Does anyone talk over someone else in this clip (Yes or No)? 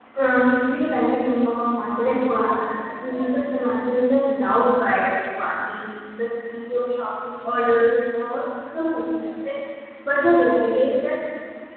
No